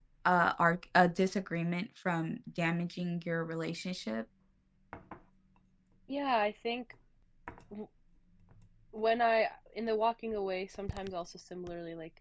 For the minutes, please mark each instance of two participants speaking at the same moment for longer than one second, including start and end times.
none

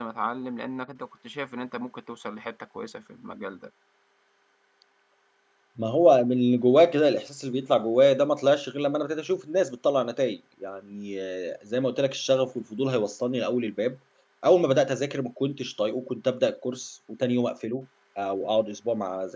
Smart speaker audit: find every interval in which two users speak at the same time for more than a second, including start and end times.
none

